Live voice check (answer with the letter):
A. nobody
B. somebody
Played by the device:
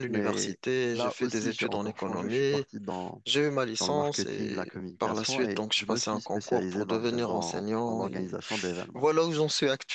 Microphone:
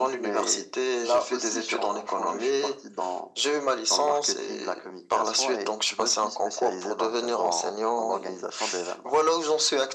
A